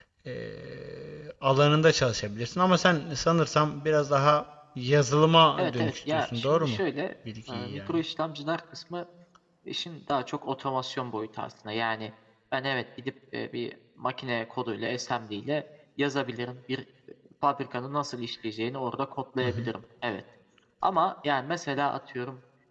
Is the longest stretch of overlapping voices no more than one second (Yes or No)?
No